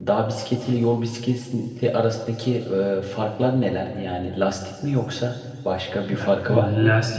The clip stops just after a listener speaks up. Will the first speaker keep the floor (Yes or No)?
No